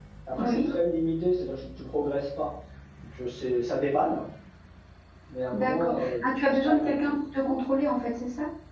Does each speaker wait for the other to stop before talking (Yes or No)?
No